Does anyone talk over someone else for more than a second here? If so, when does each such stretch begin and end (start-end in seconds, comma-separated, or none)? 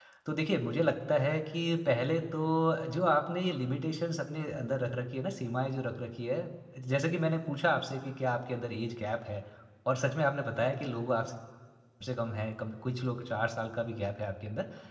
none